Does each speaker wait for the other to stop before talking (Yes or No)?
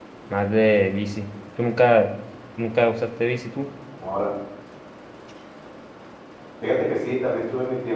Yes